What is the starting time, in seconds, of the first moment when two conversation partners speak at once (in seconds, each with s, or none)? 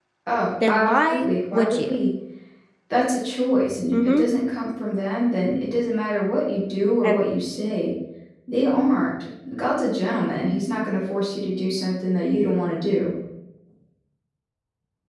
0.7 s